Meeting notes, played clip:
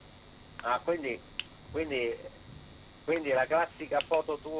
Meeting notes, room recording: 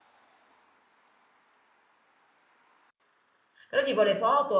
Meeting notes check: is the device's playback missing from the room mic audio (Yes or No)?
Yes